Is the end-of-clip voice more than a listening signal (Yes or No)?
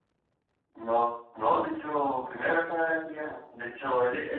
No